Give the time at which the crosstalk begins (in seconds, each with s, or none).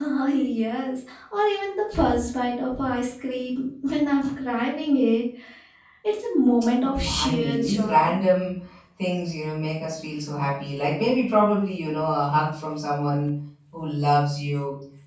6.8 s